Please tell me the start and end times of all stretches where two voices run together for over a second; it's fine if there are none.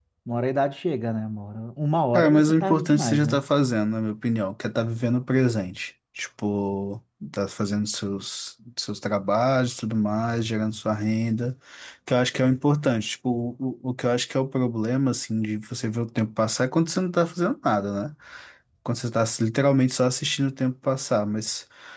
2.1-3.4

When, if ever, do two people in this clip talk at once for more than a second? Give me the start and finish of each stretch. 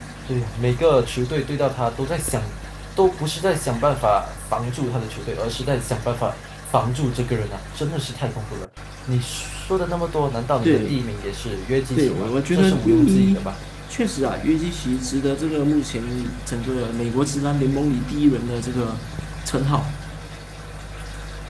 12.0-13.5

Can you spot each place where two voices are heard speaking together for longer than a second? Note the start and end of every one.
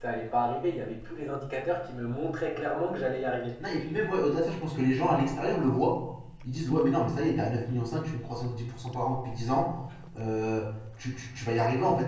none

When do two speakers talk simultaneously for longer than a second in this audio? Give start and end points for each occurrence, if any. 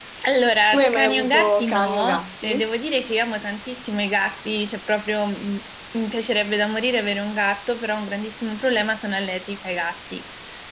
0.7-2.6

